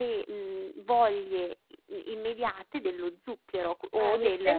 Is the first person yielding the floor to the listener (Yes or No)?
Yes